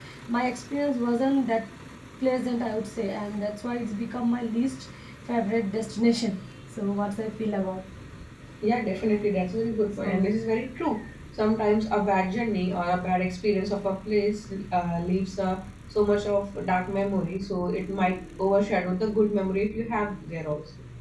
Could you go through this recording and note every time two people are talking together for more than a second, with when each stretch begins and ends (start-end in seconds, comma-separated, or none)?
none